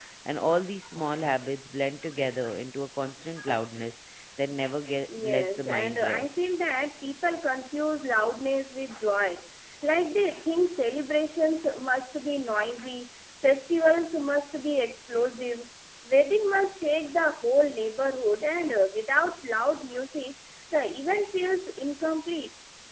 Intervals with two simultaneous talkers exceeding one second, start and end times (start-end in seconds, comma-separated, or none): 5.2-6.4